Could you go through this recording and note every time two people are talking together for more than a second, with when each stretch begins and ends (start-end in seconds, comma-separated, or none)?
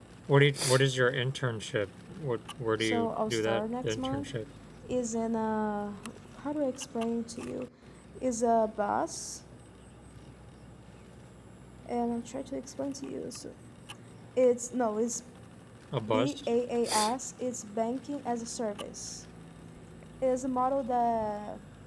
2.8-4.3